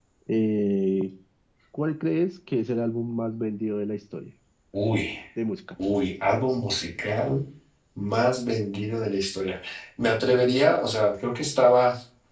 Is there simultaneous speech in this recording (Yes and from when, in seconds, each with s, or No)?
No